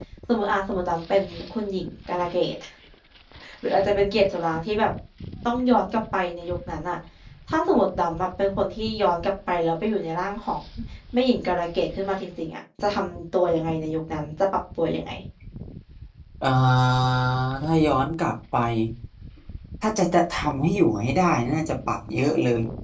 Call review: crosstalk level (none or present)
none